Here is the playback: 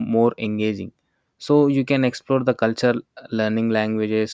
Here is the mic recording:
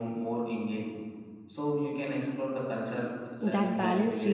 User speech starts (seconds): 3.4 s

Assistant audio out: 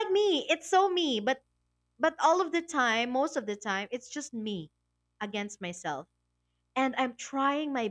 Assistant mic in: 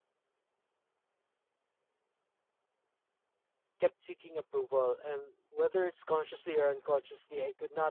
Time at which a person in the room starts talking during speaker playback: 3.8 s

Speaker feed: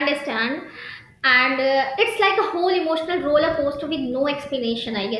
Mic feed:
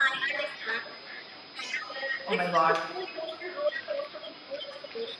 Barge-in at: 2.3 s

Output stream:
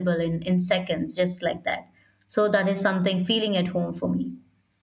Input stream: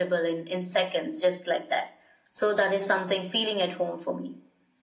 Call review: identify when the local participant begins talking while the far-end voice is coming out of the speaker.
none

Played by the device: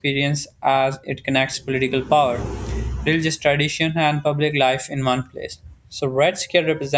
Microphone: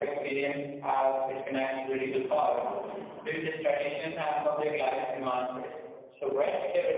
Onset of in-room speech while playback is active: none

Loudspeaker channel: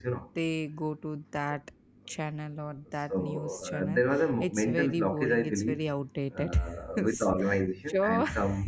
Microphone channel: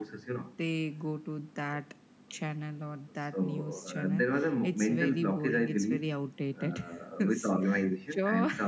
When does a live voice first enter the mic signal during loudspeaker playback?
none

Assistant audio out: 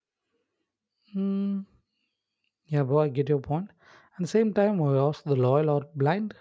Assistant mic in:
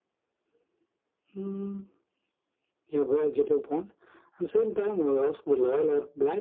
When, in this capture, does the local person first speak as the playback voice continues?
none

